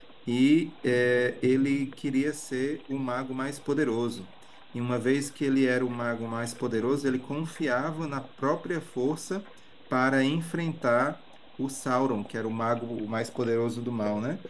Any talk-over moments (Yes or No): No